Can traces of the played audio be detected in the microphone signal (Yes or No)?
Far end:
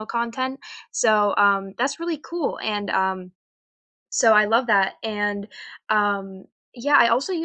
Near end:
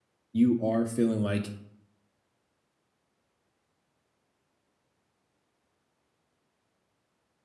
No